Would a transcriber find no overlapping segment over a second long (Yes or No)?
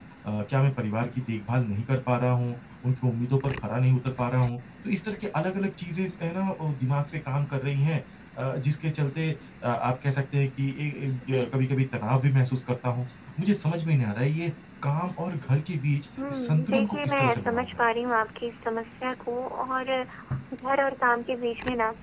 No